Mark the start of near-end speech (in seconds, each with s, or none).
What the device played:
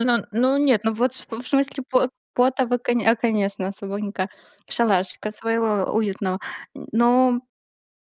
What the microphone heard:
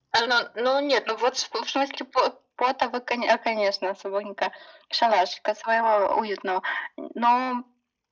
none